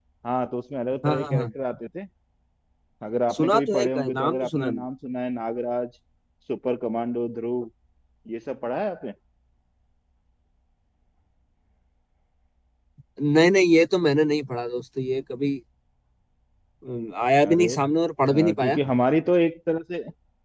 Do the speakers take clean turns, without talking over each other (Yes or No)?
No